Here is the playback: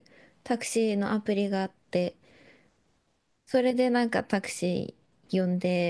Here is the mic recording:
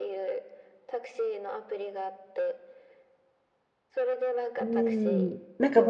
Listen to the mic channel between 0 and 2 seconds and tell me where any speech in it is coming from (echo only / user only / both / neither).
echo only